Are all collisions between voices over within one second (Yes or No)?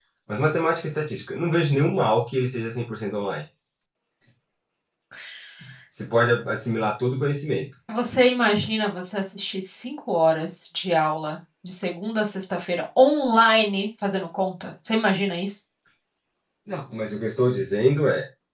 Yes